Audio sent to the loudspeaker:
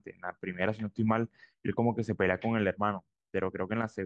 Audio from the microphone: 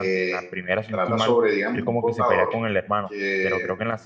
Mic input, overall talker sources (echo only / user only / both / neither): both